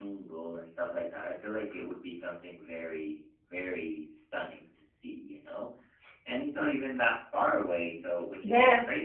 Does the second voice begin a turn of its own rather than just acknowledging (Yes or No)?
Yes